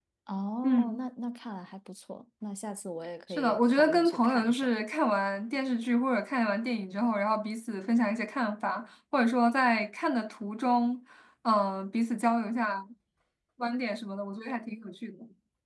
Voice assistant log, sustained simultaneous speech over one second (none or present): present